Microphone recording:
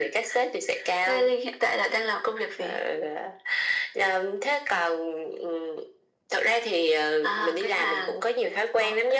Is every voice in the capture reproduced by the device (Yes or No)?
Yes